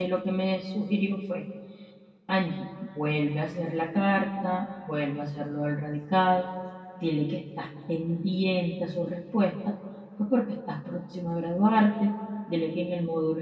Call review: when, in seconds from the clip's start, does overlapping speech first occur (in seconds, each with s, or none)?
none